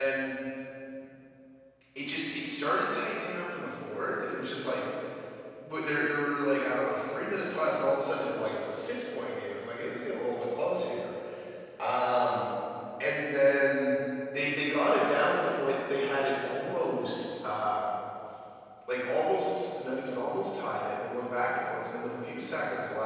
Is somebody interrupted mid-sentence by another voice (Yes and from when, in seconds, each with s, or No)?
No